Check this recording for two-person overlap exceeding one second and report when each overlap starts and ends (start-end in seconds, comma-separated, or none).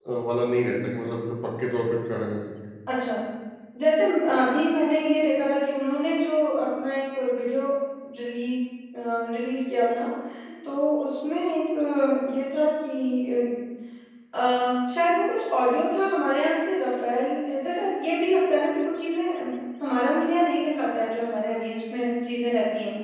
none